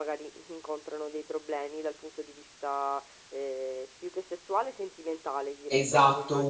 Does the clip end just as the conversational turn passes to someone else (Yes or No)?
Yes